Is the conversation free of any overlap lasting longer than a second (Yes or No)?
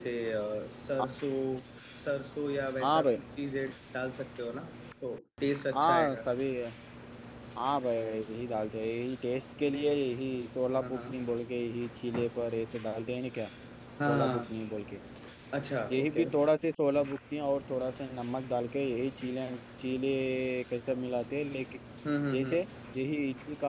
Yes